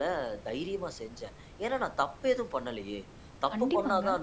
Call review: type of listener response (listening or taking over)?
listening